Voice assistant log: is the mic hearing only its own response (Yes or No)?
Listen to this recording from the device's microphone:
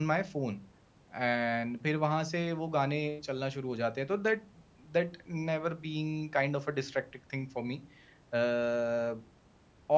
No